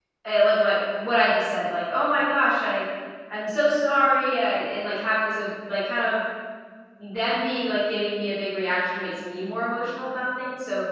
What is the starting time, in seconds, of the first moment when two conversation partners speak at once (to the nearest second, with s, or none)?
none